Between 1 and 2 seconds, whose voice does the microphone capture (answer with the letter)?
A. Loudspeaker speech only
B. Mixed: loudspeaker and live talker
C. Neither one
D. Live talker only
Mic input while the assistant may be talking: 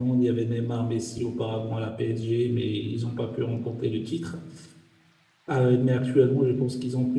D